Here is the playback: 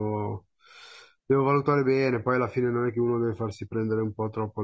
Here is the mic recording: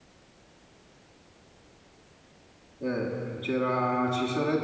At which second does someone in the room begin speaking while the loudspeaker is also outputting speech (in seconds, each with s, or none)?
2.8 s